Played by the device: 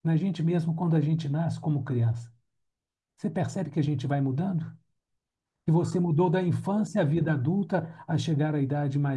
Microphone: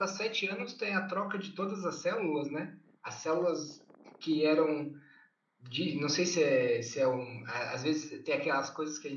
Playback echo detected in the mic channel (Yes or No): No